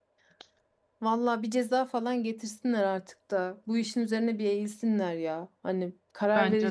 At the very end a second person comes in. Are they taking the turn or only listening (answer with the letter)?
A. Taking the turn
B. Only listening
B